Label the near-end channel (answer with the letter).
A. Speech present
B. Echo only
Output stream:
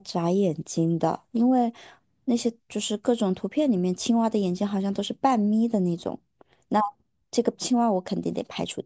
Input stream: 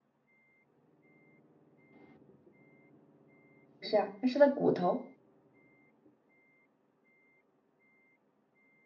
A